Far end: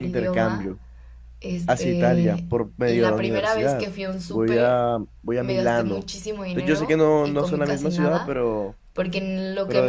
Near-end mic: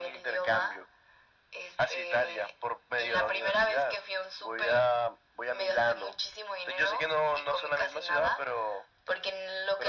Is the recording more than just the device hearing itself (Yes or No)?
No